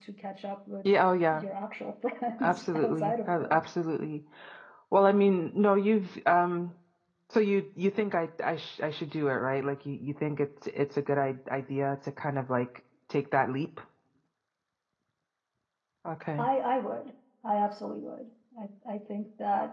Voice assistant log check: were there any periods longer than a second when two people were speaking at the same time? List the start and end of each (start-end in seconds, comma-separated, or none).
2.4-3.7